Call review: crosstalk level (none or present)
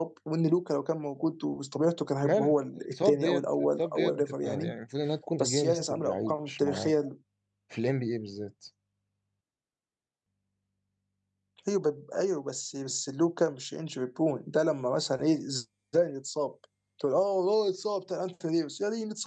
present